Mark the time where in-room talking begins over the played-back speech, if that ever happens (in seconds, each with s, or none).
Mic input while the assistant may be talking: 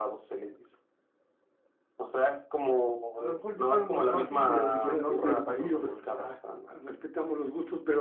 3.1 s